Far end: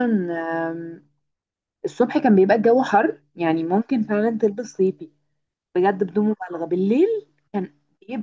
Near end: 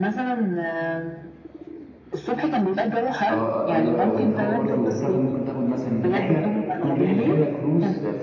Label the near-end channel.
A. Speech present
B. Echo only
A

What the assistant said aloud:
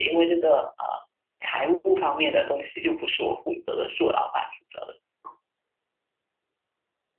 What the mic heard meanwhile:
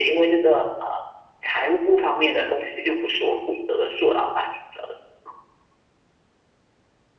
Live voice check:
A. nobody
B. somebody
A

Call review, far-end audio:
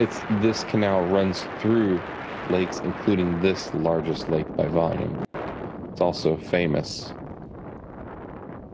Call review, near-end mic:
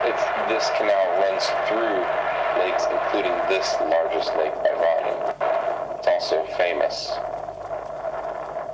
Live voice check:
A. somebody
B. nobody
B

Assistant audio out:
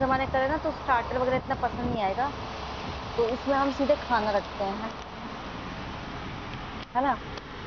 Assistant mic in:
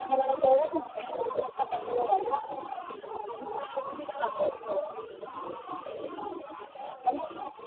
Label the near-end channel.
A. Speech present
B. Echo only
B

